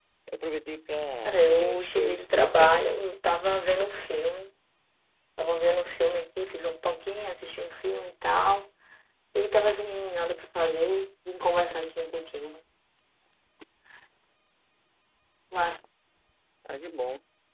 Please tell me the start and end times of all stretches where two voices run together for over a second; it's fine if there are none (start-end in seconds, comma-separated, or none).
1.2-2.7